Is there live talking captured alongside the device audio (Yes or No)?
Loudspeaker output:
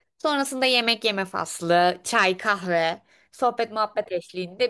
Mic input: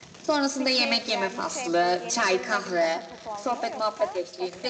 Yes